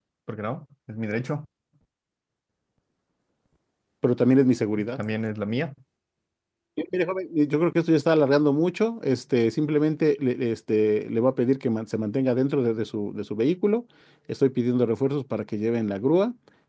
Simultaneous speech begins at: none

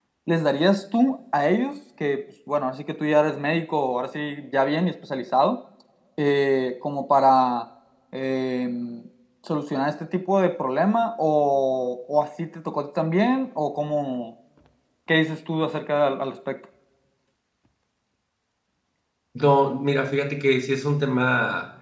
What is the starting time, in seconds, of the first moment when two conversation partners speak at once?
none

